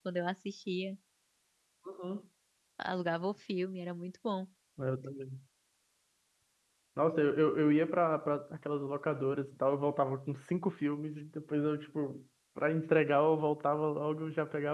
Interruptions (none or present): none